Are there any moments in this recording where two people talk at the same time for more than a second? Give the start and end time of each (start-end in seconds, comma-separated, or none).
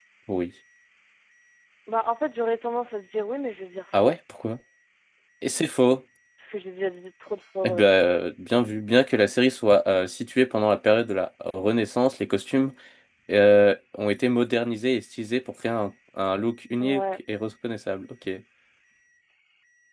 none